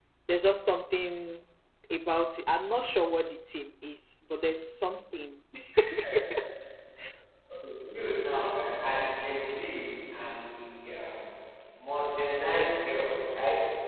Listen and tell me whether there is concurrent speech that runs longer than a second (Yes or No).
No